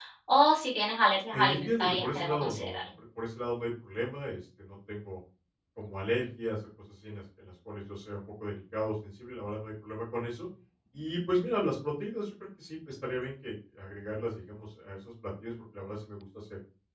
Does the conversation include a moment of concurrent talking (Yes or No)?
Yes